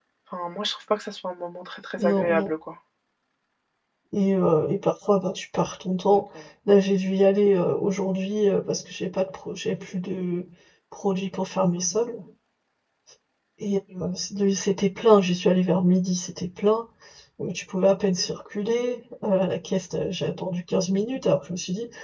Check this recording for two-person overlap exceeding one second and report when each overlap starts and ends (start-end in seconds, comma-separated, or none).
none